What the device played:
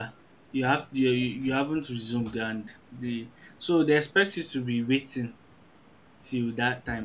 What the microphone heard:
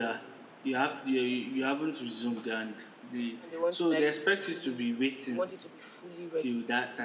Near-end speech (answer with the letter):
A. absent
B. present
B